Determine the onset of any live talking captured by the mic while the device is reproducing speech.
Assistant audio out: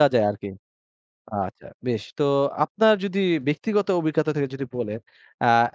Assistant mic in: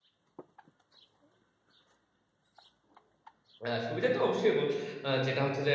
4 s

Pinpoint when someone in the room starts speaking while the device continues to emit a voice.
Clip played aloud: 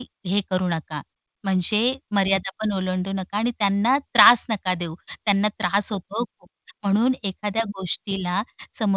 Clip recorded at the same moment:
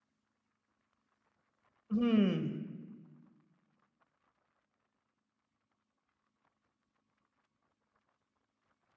2 s

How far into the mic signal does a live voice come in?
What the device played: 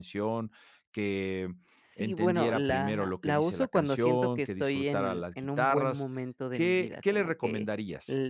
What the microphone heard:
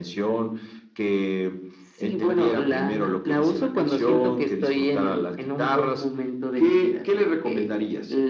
none

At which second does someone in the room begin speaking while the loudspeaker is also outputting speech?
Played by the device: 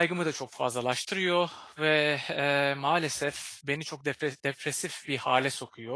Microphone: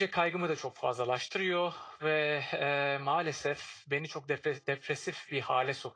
none

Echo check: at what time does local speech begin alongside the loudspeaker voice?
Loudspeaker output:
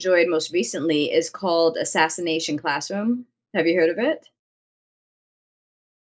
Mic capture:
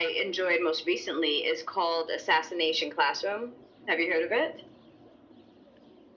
none

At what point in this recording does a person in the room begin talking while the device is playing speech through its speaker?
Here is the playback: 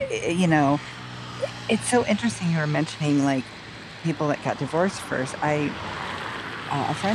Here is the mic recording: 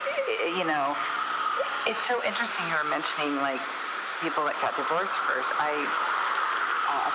none

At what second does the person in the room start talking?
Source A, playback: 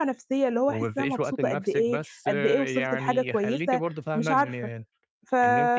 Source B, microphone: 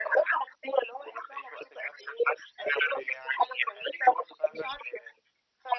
none

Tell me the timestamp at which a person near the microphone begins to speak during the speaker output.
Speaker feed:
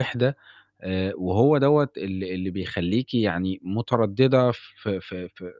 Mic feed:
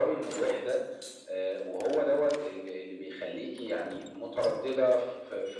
none

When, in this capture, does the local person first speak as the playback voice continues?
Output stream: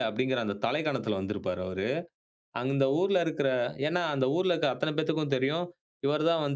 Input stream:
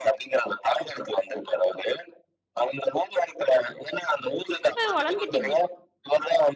5 s

